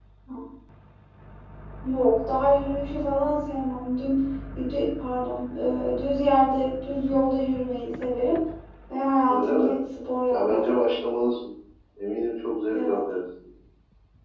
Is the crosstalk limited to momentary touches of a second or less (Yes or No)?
Yes